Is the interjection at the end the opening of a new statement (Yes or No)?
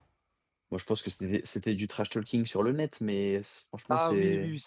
Yes